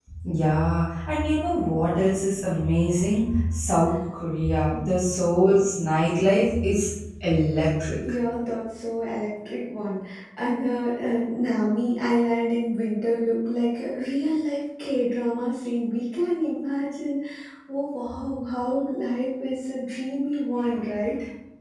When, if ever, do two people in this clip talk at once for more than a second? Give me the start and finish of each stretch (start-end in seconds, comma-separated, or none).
none